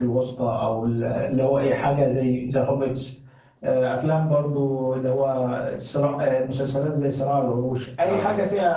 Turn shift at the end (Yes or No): No